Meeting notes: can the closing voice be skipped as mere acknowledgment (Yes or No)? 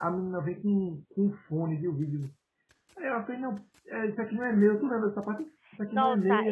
No